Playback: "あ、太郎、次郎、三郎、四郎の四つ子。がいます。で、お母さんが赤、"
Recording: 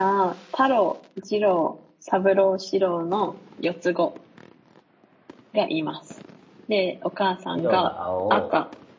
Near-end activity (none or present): present